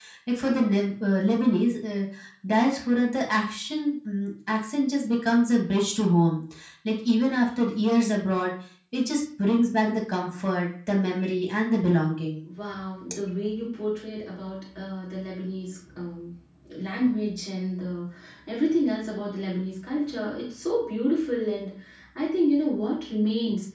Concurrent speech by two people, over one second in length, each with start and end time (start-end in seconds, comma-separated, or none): none